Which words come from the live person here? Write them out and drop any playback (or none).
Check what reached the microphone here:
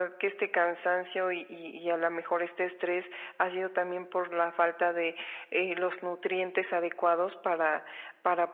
none